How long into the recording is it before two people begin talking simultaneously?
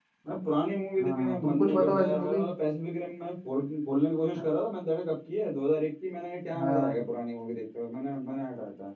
1.0 s

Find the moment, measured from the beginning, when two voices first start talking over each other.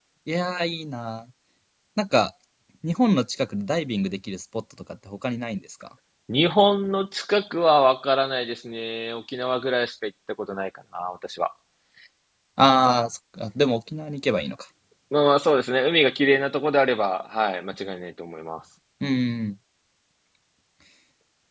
none

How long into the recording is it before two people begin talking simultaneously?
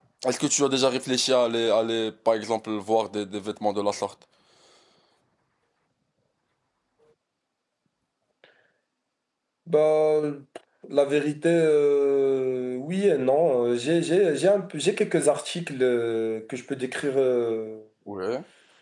none

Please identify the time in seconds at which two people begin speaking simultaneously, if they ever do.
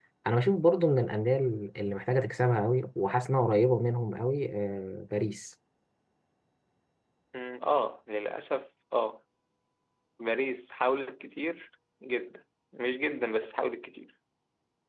none

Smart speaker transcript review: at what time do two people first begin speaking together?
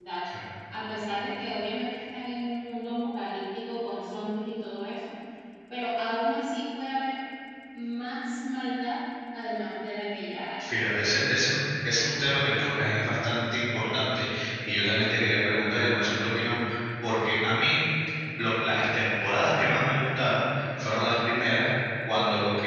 none

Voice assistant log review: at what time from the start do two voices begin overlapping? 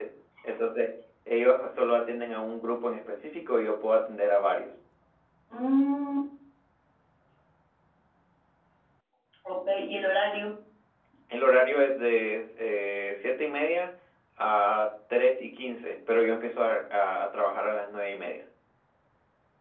none

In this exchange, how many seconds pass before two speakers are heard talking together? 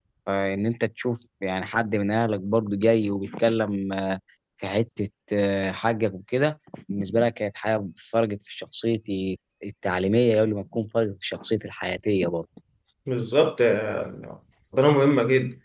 none

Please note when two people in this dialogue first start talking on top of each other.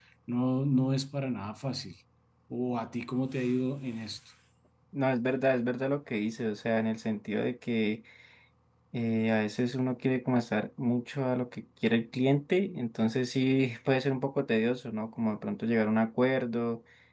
none

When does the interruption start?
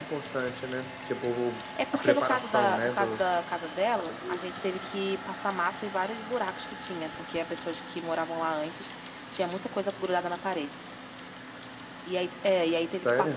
1.9 s

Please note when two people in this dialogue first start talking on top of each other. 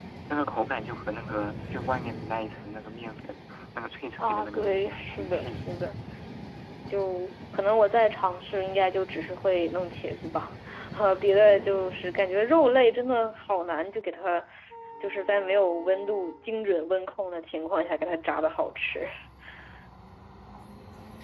4.2 s

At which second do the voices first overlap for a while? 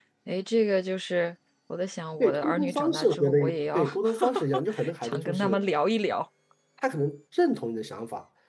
2.2 s

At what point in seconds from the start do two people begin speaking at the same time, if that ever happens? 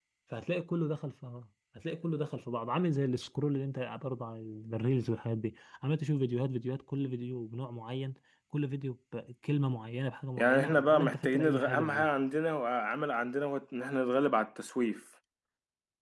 10.4 s

